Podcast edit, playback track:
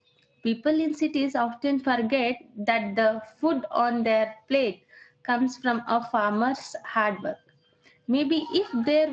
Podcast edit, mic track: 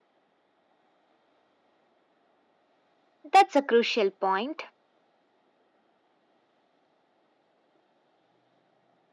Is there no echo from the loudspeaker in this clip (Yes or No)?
Yes